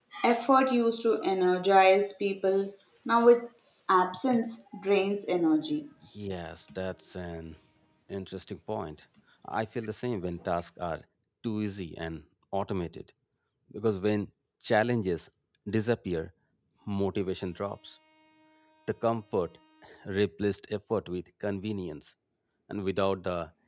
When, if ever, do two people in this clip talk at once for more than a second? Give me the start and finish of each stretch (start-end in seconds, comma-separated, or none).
none